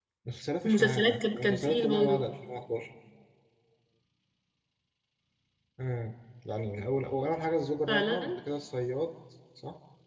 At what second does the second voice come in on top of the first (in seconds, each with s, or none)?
0.6 s